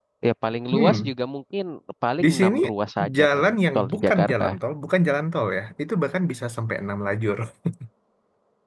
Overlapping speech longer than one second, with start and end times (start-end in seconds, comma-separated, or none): 3.2-4.4